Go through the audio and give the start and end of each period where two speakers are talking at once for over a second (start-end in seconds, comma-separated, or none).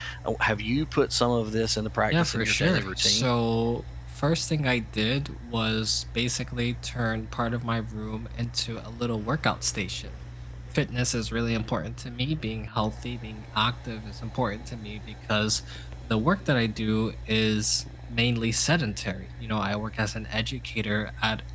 2.1-3.3